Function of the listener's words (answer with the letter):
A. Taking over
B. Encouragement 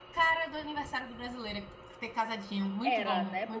A